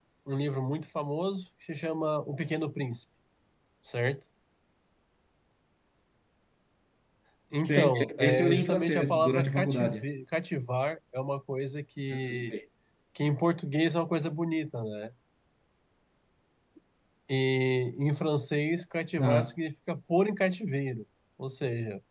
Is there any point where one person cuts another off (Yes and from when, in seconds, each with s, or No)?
Yes, from 7.6 s